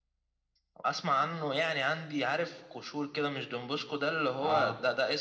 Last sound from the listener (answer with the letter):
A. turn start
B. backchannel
B